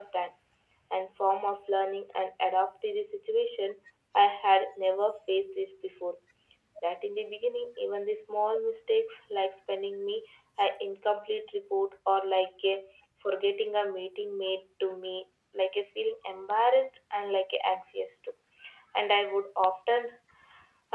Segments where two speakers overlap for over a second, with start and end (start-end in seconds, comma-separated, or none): none